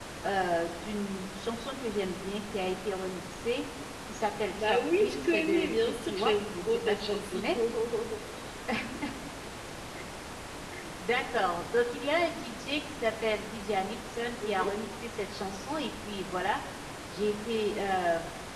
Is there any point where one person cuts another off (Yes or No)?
Yes